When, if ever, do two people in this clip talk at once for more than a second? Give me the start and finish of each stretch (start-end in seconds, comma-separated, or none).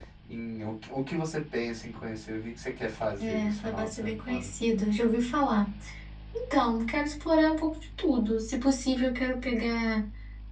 3.2-4.5